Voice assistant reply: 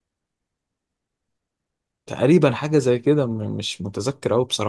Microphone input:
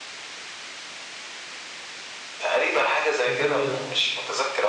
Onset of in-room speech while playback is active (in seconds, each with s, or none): 3.2 s